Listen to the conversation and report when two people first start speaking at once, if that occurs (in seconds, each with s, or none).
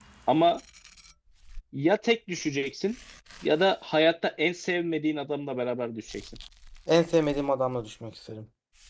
none